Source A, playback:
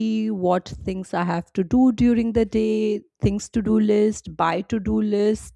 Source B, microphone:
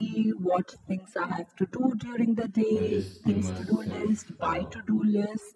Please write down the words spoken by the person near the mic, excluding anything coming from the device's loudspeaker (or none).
I just give myself uh,